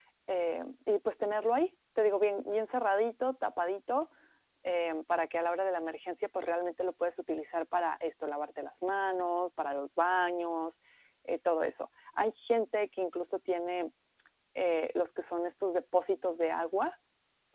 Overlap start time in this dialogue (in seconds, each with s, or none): none